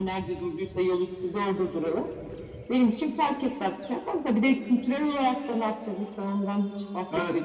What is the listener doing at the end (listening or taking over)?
taking over